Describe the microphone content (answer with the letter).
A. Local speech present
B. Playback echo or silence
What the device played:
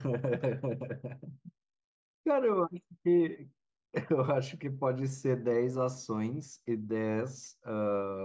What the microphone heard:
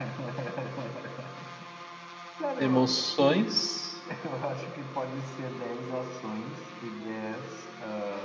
A